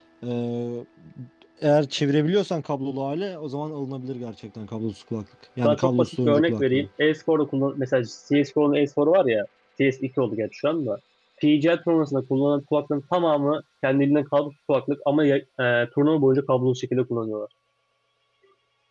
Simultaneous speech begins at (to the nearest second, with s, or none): 6 s